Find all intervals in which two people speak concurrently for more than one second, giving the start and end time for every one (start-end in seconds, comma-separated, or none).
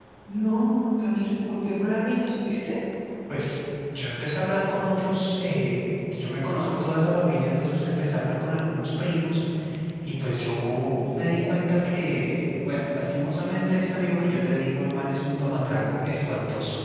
none